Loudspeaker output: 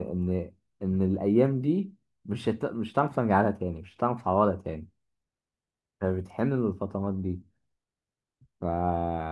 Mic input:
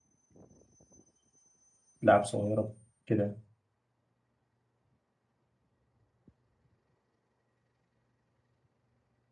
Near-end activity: present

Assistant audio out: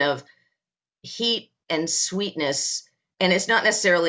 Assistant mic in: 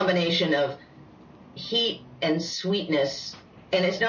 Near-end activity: none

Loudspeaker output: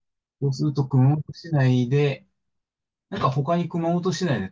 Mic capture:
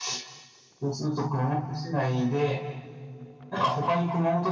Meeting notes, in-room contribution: none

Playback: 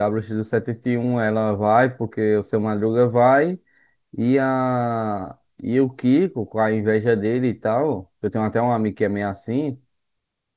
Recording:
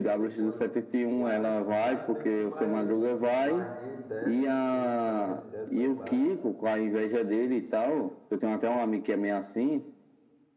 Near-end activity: present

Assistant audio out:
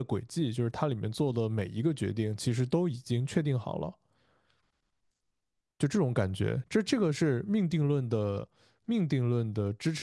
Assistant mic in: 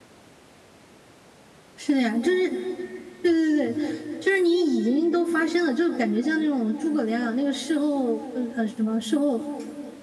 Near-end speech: present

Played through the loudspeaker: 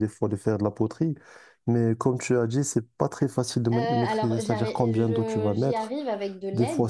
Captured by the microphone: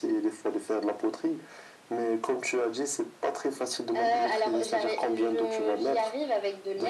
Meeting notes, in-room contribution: none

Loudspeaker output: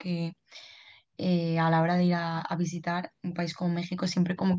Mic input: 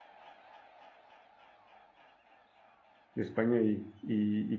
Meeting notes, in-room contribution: present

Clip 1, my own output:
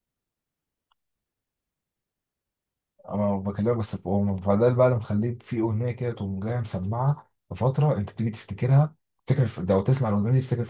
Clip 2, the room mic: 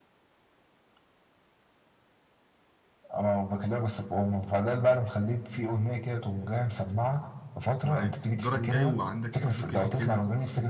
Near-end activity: present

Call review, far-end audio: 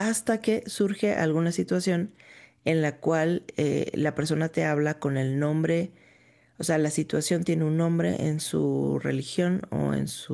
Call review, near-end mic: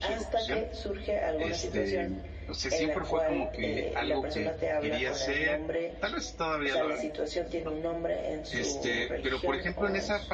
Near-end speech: present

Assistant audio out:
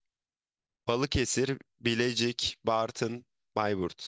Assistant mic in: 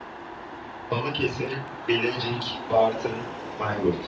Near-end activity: none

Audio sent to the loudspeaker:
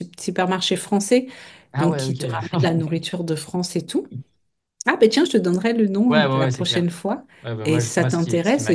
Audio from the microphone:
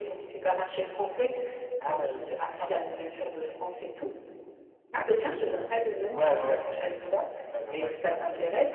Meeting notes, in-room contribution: none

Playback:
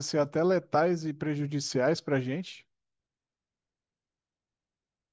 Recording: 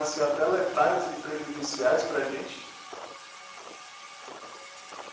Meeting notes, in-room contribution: none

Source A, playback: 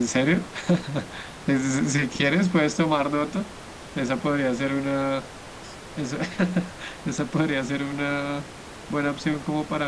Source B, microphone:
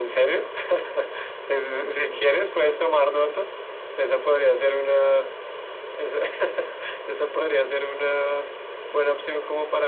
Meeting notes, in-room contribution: none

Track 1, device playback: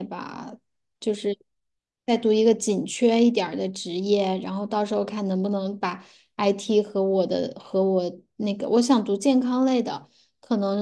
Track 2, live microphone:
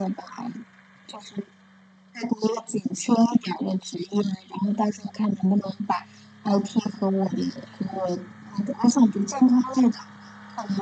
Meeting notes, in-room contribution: none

